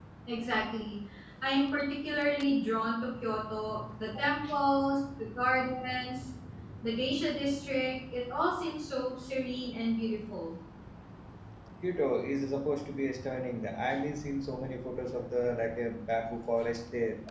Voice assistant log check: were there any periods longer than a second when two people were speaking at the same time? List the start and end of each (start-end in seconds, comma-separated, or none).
none